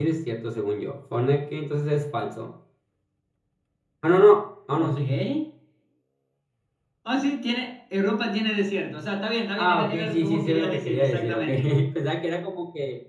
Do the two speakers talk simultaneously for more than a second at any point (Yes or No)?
Yes